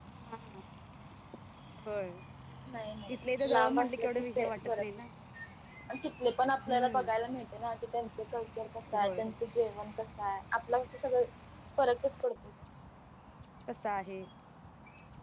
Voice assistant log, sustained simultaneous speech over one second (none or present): present